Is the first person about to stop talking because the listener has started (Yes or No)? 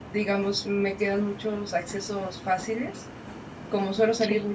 No